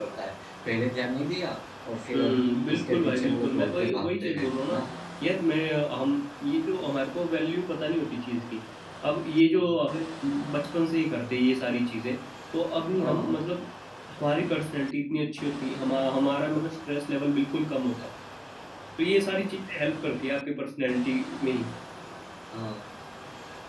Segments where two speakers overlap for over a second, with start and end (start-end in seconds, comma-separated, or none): 2.1-4.8